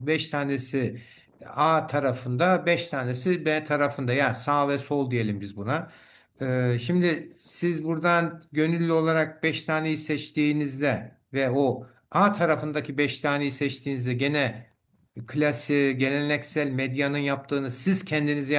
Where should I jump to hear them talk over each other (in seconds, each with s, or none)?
none